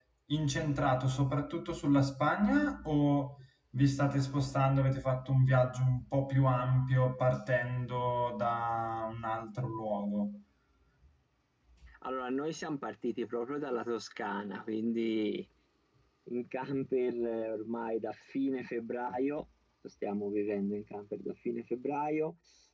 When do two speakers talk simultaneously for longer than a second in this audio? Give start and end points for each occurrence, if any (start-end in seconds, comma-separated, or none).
none